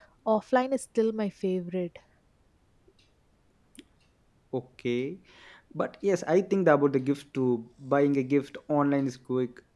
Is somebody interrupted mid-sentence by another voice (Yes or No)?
No